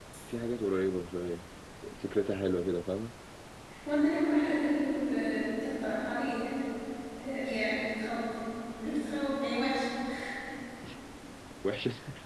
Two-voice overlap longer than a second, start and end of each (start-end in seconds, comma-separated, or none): none